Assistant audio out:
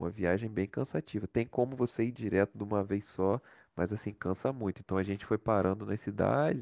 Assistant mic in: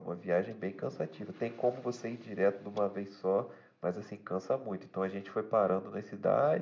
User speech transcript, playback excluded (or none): none